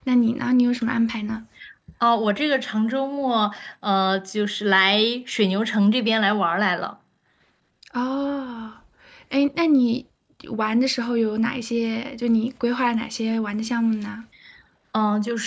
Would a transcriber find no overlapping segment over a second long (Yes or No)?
Yes